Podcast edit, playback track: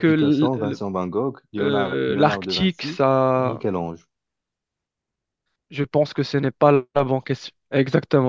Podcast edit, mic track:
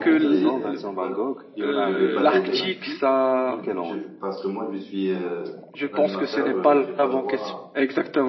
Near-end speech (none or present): present